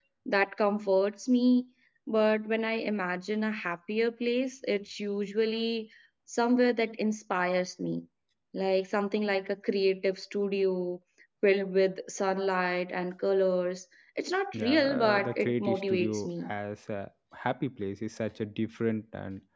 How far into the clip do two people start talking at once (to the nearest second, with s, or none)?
15 s